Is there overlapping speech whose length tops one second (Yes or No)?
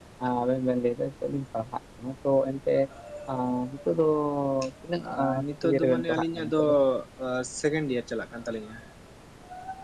Yes